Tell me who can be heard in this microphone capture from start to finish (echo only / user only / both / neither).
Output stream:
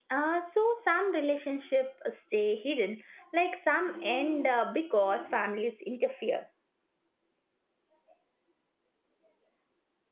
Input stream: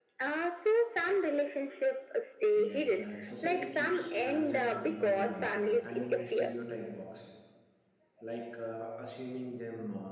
both